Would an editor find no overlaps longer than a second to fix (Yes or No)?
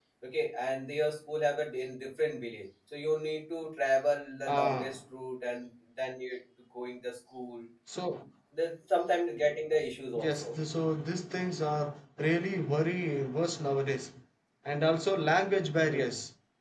Yes